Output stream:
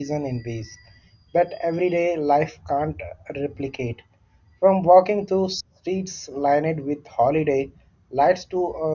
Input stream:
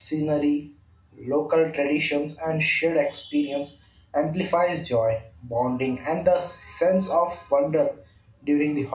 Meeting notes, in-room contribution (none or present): present